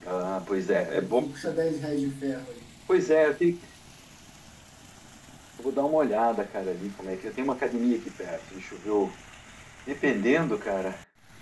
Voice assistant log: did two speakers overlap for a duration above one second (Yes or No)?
No